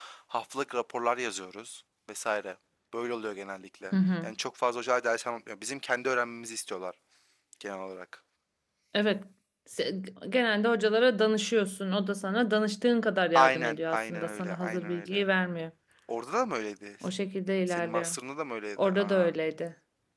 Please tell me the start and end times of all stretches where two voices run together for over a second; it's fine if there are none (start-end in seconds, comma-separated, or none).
13.3-15.2